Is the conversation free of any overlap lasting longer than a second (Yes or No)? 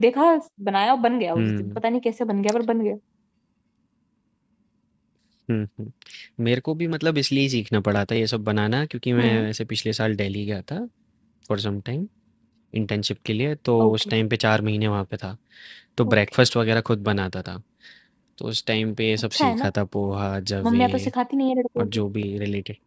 Yes